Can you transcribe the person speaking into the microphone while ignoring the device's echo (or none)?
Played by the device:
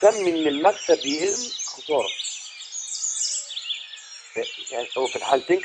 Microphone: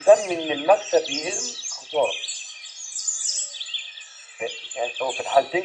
none